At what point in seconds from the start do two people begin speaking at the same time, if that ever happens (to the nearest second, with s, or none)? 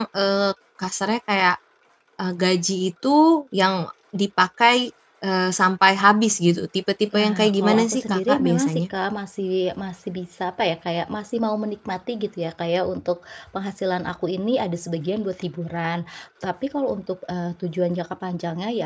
7 s